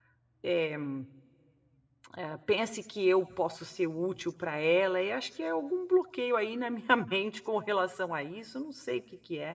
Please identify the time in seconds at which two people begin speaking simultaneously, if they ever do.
none

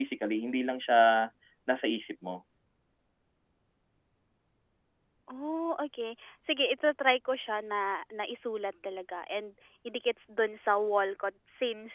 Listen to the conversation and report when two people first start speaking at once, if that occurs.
none

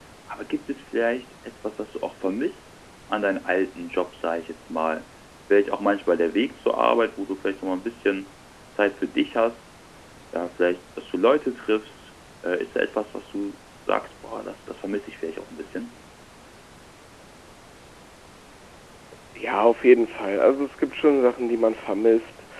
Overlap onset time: none

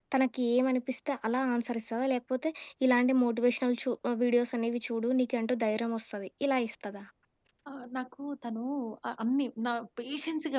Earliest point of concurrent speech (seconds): none

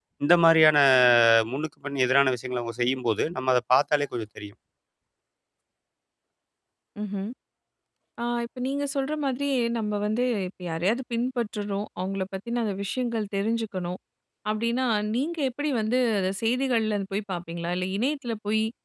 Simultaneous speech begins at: none

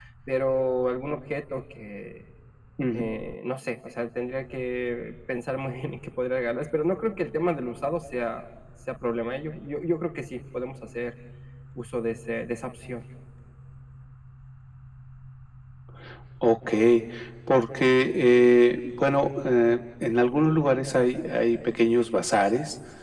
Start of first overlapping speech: none

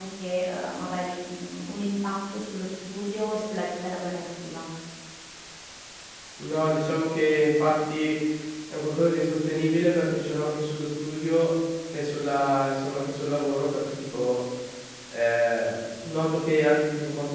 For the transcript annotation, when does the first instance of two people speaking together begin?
none

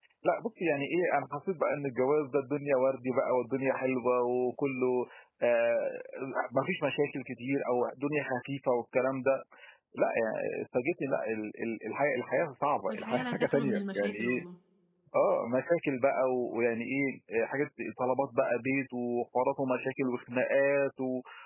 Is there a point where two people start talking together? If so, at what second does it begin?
12.9 s

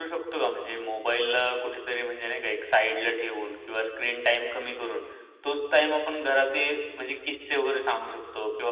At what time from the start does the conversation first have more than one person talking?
none

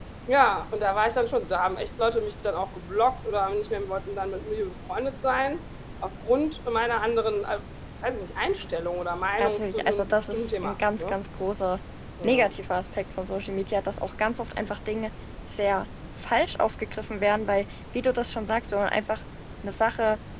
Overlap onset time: 9.4 s

